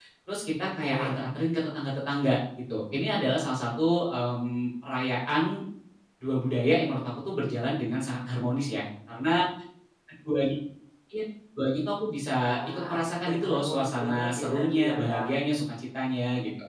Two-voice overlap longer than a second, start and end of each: 12.7-15.3

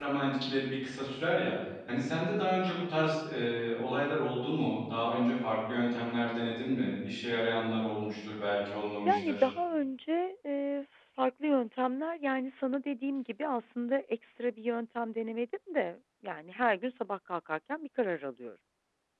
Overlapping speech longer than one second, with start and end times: none

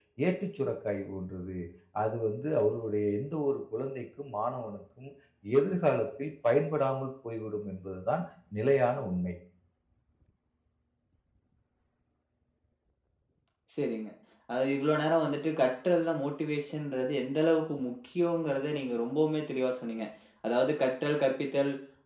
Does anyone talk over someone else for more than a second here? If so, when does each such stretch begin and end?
none

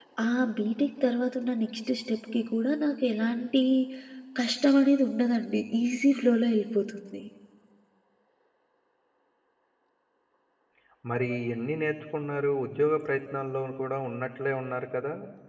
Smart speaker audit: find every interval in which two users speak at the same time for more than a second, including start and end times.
none

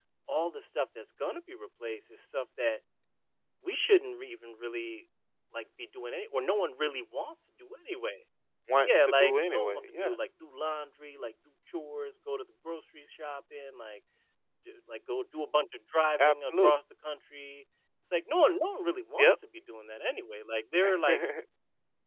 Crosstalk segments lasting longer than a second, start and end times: 8.8-10.2

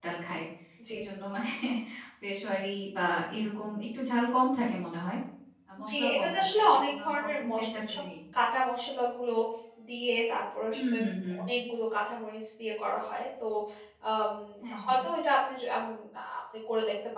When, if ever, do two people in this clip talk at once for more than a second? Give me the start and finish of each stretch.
5.9-8.0

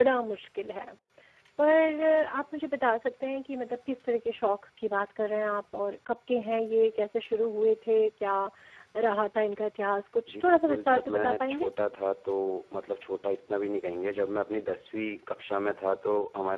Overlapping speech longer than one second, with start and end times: 10.3-11.7

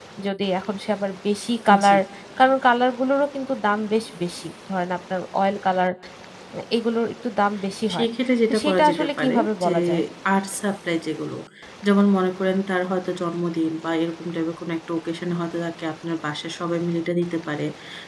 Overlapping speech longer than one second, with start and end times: 8.5-9.8

